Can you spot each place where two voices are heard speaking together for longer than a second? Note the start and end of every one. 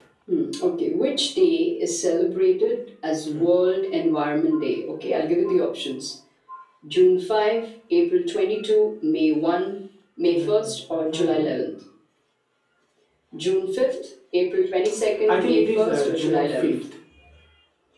10.3-11.5, 15.3-16.8

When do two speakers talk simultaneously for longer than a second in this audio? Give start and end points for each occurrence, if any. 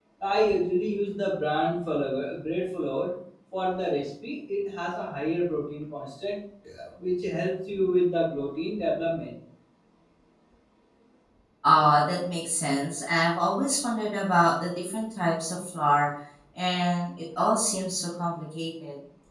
none

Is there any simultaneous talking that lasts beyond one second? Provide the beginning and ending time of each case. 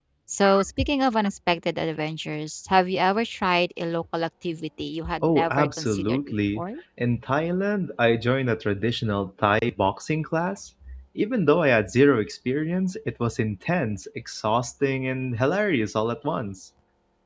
5.2-6.6

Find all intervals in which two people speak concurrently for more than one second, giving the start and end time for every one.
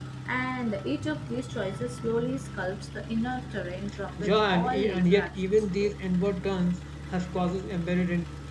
4.2-6.0

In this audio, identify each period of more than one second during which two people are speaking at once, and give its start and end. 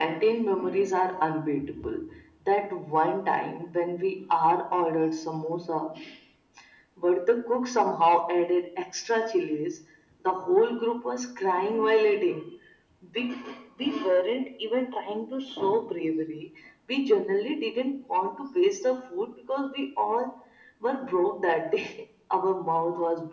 none

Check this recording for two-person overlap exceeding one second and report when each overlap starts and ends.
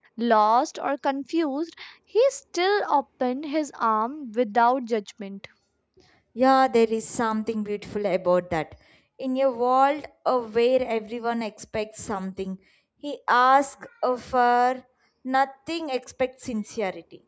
none

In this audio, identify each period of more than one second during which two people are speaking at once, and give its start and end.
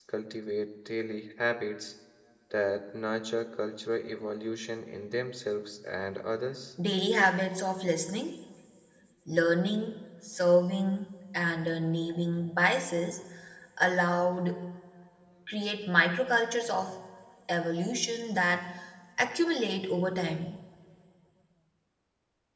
none

